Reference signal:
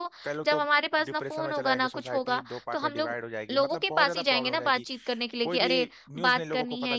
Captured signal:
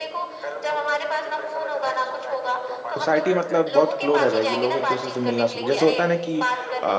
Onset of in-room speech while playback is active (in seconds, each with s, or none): 3.0 s